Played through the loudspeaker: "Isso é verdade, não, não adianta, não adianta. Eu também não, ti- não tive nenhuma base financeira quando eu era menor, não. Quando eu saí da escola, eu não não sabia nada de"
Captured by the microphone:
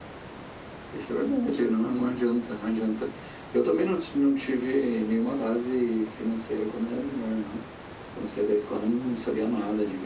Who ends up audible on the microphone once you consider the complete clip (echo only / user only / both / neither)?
echo only